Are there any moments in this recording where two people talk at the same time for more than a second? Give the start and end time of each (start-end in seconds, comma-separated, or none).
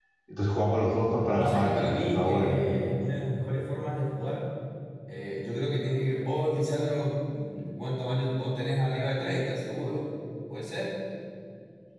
1.3-2.6